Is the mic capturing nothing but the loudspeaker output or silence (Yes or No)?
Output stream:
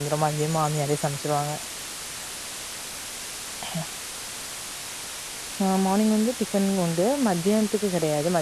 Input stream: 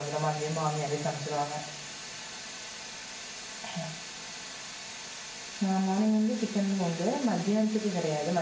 Yes